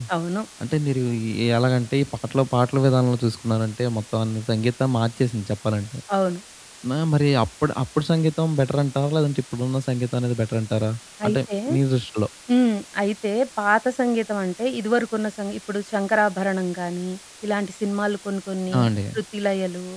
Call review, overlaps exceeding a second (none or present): none